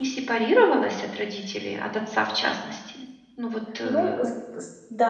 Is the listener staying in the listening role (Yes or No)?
No